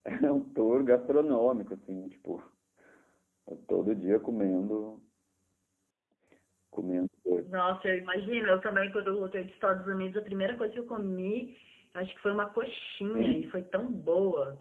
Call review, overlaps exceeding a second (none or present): none